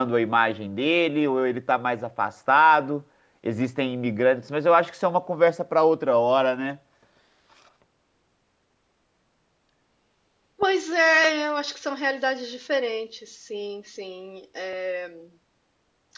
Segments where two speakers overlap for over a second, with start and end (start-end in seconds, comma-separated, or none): none